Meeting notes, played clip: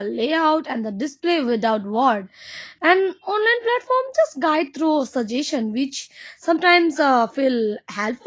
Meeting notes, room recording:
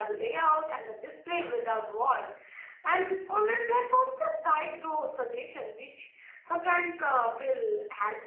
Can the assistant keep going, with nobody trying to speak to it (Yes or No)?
Yes